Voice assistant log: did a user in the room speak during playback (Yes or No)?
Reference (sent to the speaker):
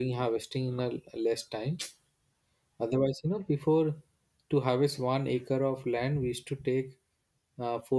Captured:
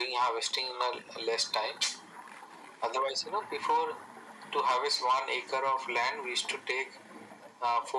No